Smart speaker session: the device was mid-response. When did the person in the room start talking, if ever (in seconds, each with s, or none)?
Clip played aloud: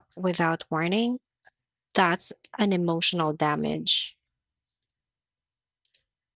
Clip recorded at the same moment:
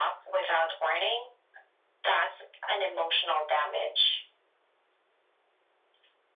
none